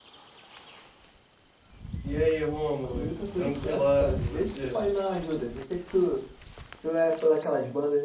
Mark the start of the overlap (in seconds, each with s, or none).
2.8 s